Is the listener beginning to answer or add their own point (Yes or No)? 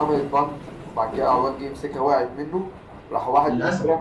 No